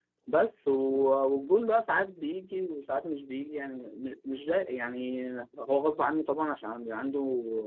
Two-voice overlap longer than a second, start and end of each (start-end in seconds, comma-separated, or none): none